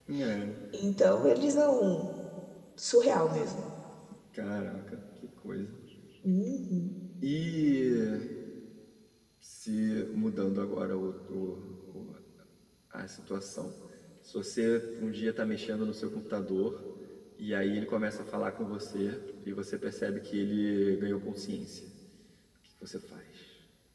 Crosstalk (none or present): none